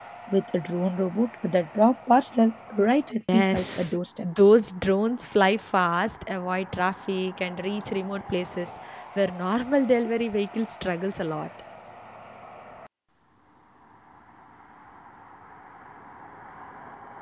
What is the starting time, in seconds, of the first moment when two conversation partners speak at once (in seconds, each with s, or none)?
3.3 s